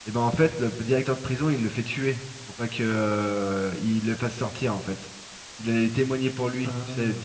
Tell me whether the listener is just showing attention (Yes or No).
Yes